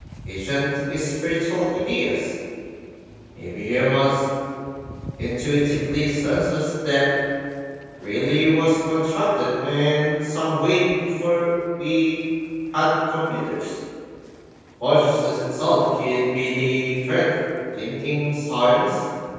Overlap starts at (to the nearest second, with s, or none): none